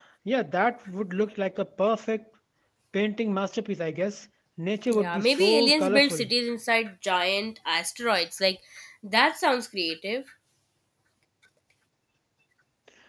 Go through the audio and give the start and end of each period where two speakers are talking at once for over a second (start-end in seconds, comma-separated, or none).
4.9-6.2